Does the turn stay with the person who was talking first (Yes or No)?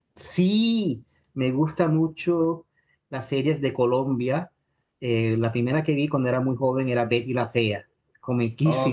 No